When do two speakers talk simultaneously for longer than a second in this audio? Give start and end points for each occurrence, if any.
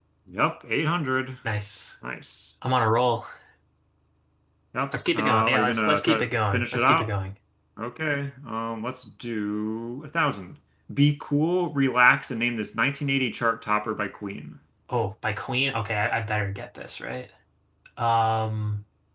5.1-7.1

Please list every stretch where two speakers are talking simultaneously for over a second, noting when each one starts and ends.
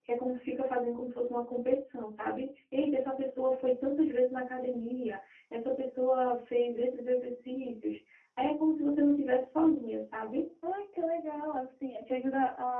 none

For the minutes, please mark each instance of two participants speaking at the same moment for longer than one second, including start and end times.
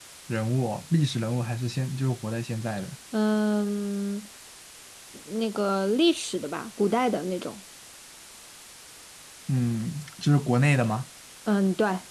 none

